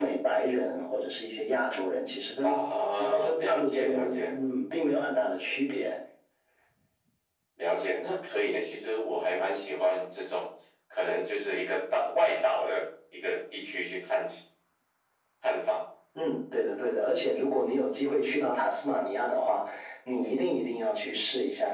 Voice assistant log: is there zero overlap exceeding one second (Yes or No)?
No